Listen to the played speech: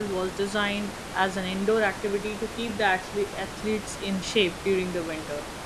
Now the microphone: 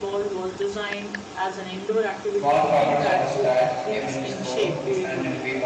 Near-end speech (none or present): present